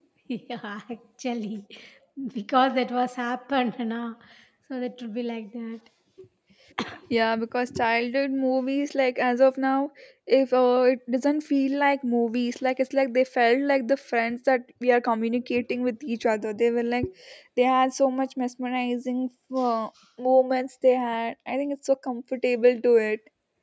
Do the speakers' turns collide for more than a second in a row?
No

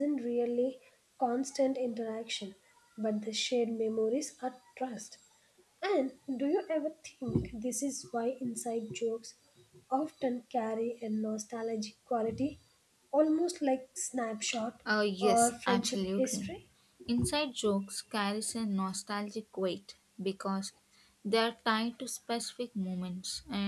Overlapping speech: Yes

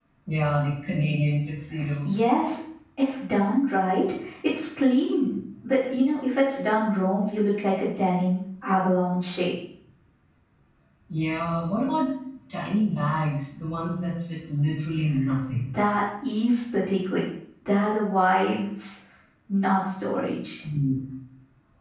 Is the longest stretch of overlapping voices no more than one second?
Yes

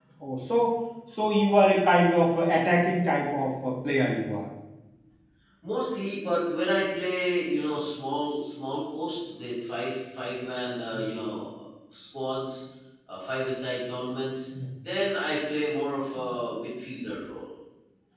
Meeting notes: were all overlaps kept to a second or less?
Yes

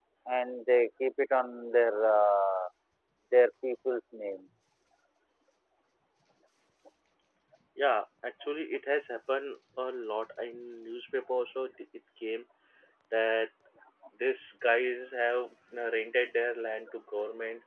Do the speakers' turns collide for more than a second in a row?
No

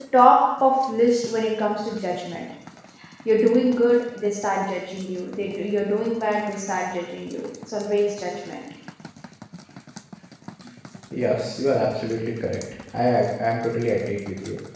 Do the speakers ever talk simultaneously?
No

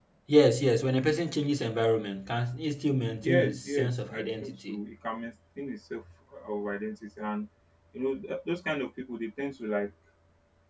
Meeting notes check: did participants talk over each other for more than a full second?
Yes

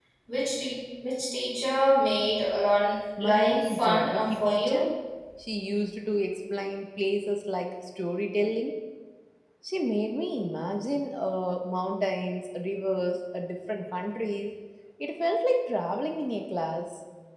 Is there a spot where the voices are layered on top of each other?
Yes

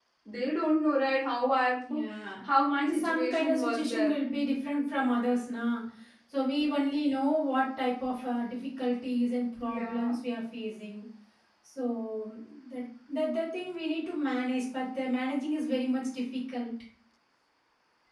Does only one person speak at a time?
No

